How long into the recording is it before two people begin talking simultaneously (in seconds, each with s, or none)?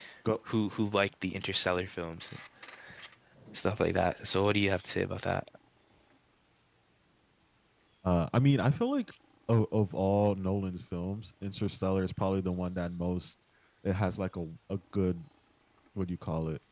none